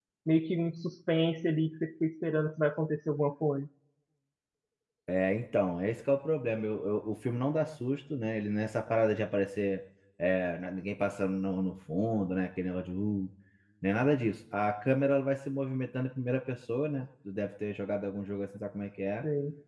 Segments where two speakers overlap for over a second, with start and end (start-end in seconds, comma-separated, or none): none